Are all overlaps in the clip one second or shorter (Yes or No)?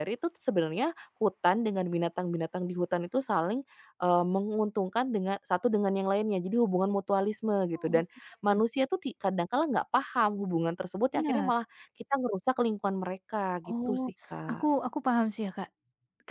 Yes